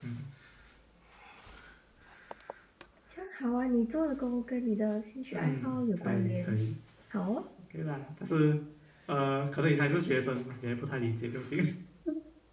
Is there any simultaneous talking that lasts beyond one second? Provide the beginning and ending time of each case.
5.3-6.6

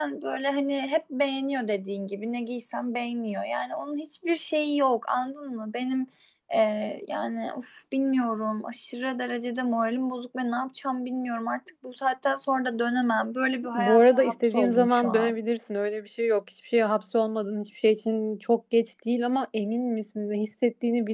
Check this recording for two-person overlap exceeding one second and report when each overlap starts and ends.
13.7-15.3

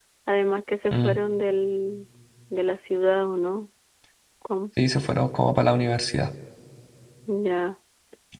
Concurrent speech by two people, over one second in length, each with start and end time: none

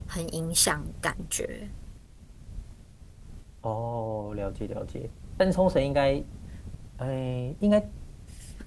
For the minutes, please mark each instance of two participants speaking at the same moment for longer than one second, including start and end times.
none

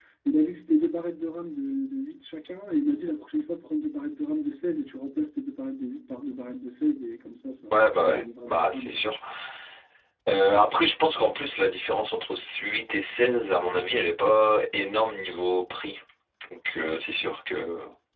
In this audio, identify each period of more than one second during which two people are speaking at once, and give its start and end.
7.7-9.0

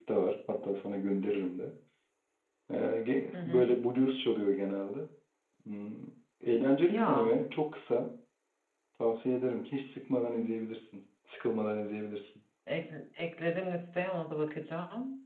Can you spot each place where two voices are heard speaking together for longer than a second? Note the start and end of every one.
none

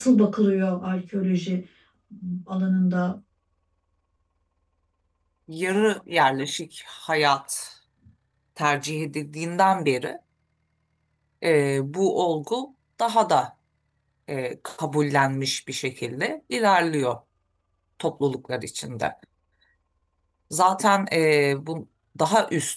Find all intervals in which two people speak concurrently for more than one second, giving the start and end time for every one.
none

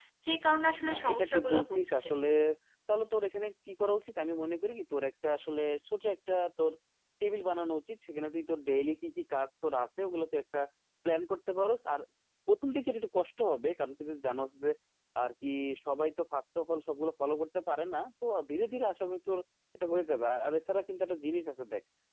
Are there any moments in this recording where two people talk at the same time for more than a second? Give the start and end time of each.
0.9-2.1

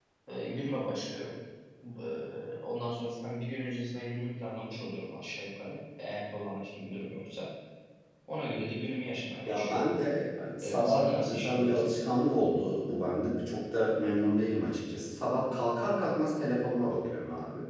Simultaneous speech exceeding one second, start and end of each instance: 10.6-12.0

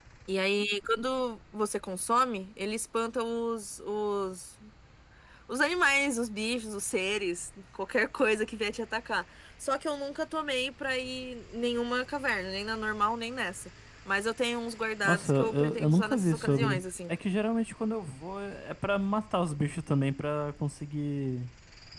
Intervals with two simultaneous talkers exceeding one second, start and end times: 15.0-16.8

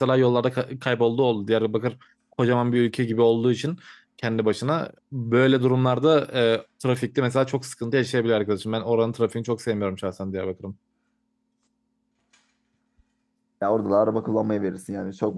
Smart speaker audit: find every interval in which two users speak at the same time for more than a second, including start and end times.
none

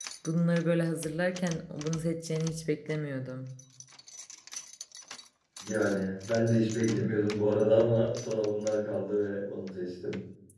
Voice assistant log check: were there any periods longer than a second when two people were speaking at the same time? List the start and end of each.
none

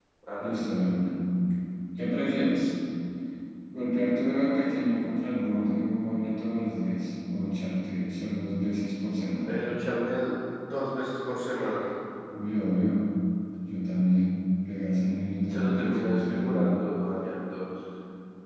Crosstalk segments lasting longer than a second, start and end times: 15.5-16.7

